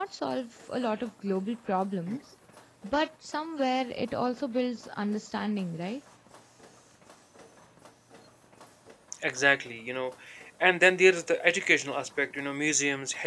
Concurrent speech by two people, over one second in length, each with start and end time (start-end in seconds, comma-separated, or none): none